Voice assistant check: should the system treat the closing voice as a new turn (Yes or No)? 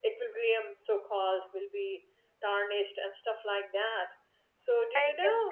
Yes